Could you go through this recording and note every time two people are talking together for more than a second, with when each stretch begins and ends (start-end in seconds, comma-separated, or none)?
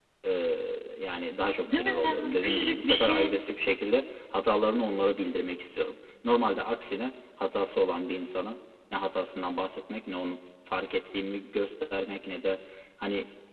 1.7-3.3